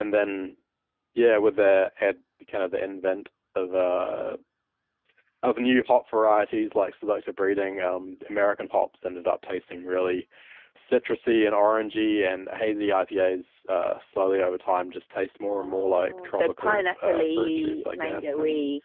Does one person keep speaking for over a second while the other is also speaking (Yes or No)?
Yes